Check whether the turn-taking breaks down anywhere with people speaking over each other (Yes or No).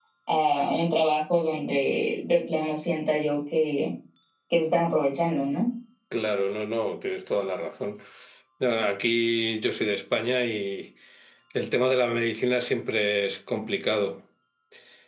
No